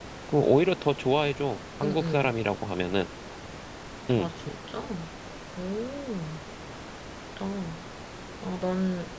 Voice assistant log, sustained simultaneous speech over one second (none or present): none